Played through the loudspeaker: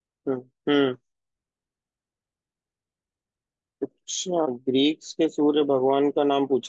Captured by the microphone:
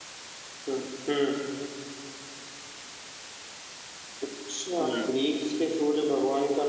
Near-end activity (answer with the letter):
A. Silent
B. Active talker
B